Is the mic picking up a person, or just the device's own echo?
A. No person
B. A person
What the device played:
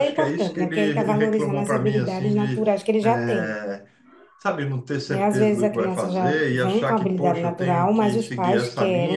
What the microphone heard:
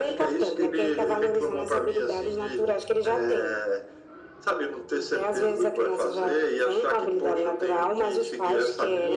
A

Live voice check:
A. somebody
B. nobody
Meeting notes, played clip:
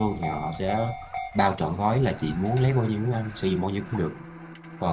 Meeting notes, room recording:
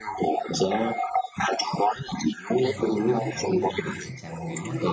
A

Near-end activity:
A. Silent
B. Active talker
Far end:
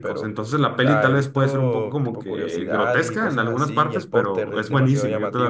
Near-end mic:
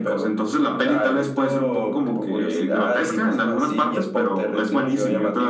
A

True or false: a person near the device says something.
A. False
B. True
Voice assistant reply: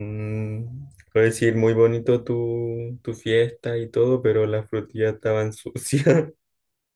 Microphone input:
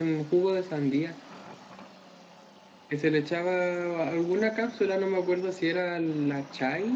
B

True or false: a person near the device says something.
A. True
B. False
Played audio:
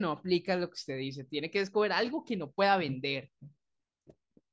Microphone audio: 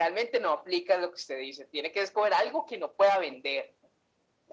B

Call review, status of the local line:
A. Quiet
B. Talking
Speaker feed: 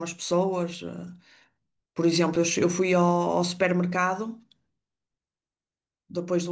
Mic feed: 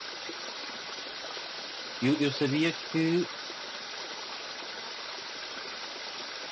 B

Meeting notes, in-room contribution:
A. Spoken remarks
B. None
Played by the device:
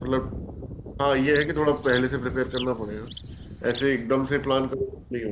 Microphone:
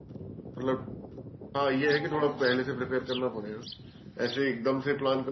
A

